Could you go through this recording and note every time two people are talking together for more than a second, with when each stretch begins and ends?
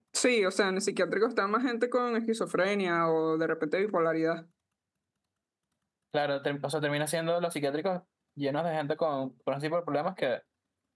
none

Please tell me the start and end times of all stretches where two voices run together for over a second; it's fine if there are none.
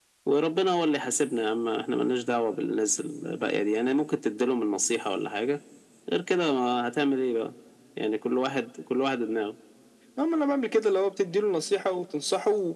none

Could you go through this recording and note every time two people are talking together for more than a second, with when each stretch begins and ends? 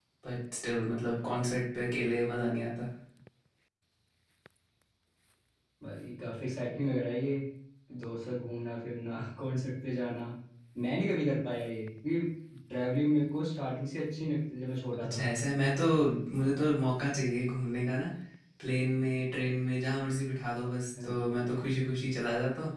none

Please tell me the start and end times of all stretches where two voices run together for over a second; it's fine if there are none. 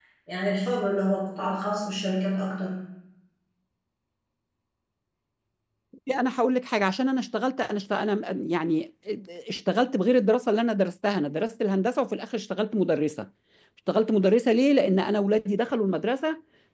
none

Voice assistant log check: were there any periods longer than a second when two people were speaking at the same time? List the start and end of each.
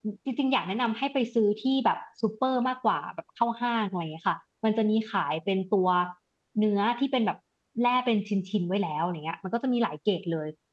none

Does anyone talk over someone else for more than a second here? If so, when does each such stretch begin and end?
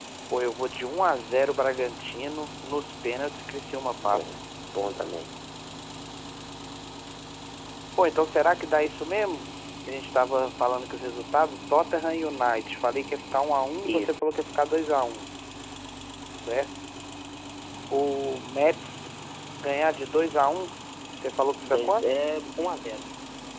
none

